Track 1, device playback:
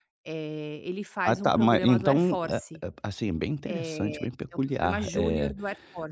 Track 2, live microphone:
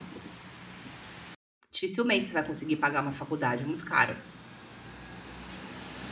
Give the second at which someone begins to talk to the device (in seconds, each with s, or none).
1.7 s